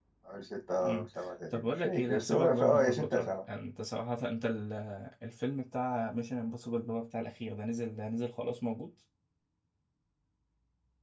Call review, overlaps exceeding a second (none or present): present